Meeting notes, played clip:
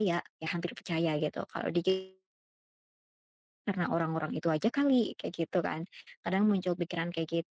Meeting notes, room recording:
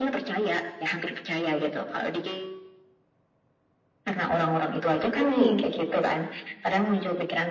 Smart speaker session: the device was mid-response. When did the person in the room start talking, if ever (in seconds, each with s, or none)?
5.2 s